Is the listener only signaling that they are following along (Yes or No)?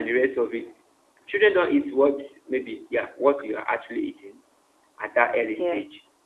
Yes